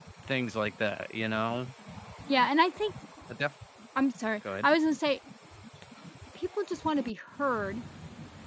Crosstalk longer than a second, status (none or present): none